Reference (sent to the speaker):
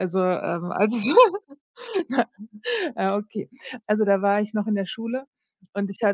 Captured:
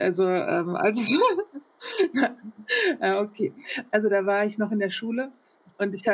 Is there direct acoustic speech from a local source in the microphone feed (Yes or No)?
No